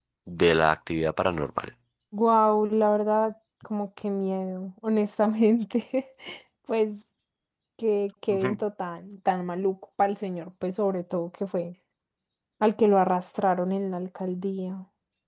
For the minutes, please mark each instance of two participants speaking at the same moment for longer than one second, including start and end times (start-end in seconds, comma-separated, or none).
none